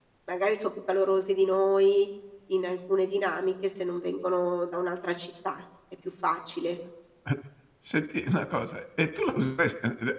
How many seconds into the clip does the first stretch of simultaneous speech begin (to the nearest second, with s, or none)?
none